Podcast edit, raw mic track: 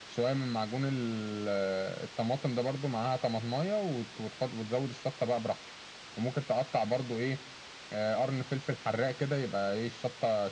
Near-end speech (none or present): none